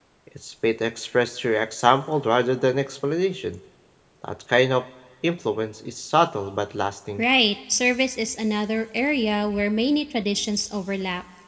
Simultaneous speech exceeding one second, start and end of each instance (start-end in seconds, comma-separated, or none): none